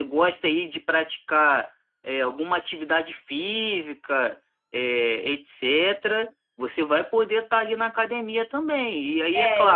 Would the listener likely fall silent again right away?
No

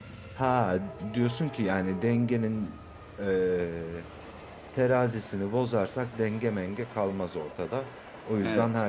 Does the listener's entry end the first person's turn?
No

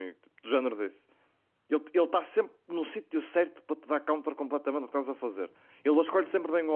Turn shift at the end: No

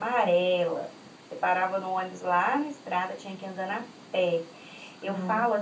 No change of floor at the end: Yes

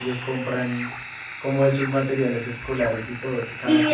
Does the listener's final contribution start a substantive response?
Yes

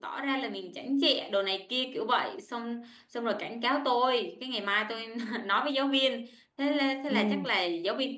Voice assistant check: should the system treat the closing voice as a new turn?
No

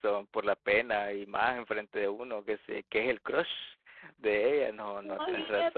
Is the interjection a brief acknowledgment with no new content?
No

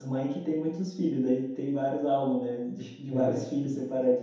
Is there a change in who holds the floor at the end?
No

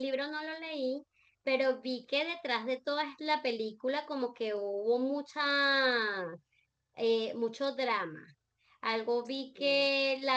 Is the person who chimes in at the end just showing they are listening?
Yes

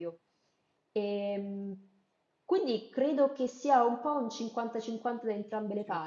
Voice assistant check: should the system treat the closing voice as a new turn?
No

